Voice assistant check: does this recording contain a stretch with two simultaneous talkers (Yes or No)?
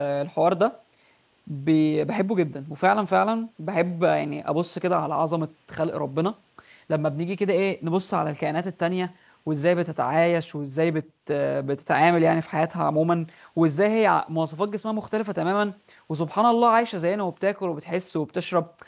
No